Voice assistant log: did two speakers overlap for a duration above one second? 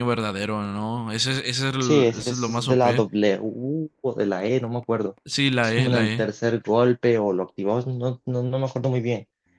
Yes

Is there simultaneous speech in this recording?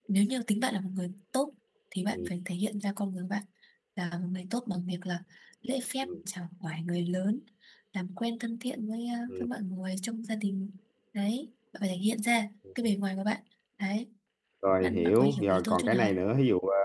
Yes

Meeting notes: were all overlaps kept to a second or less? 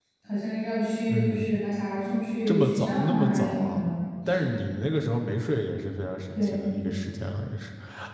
No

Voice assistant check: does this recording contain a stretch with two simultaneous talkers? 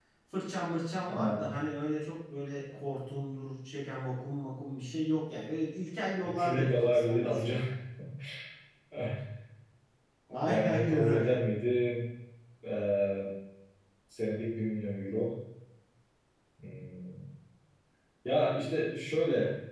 Yes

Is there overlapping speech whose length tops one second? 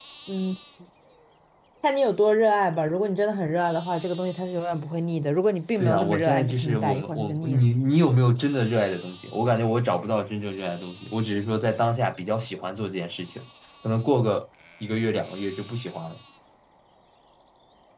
Yes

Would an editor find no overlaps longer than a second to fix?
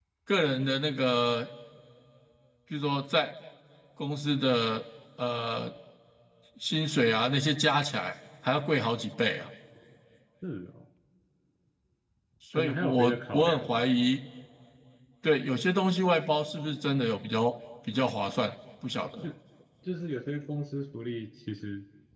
No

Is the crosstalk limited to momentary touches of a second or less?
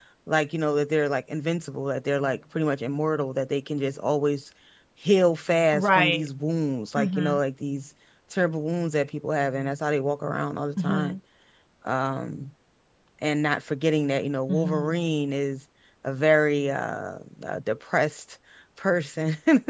Yes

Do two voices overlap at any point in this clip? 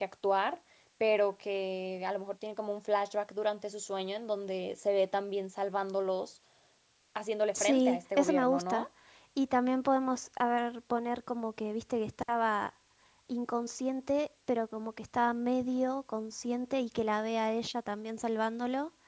Yes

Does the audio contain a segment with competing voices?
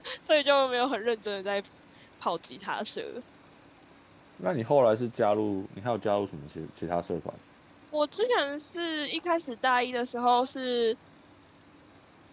No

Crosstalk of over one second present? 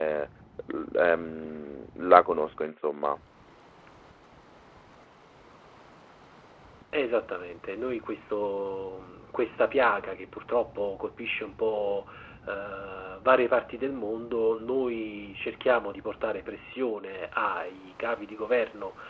No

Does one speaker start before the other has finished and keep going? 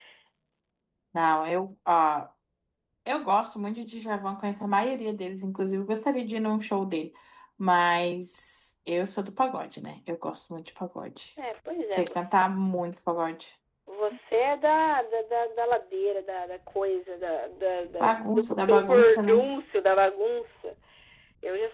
Yes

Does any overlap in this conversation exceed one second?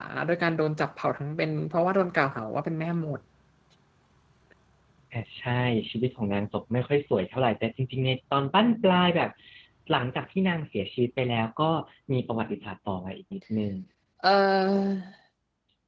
No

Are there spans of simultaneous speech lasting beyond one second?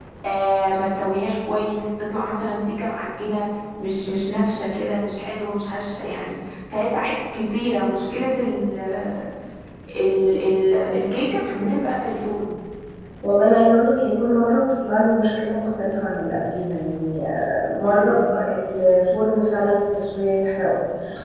No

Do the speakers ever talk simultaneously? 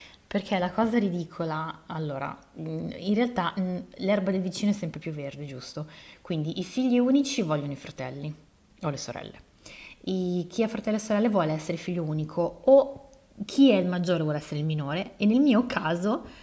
No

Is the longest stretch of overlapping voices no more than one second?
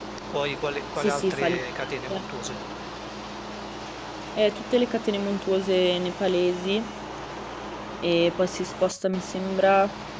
No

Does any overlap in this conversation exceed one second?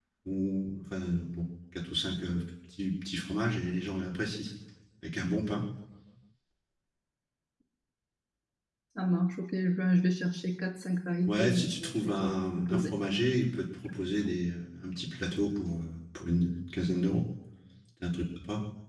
Yes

